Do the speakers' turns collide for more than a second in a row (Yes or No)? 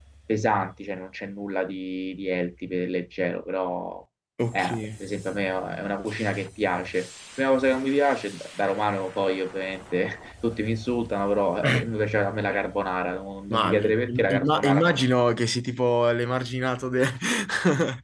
Yes